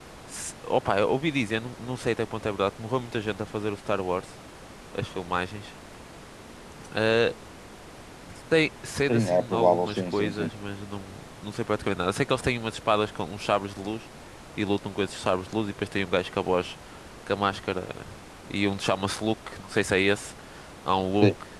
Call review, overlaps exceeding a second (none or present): present